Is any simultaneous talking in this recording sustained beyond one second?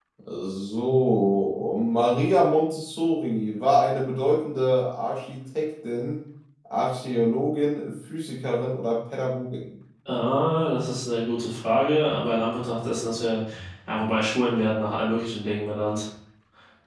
No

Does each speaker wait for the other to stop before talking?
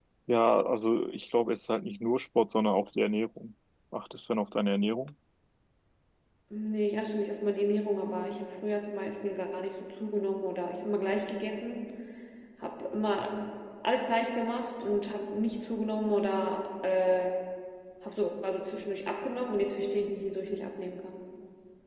Yes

